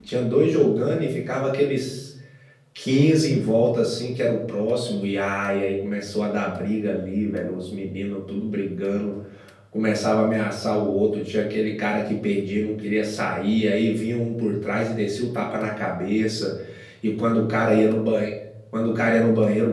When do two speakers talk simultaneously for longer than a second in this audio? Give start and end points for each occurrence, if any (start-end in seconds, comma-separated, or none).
none